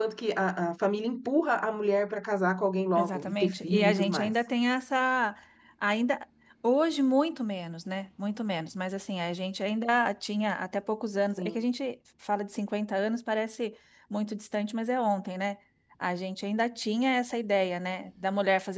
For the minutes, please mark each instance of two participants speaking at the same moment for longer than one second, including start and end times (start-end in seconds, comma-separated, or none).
3.0-4.3